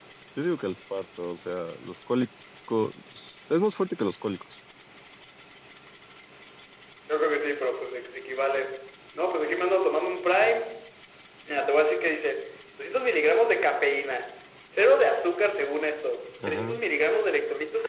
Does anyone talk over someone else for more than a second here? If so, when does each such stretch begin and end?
none

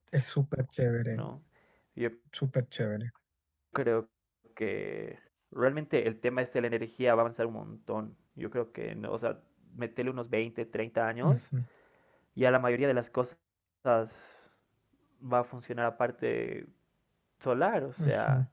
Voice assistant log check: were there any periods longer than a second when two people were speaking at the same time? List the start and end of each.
none

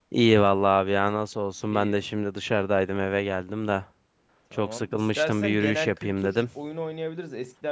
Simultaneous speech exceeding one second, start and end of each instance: 4.5-6.4

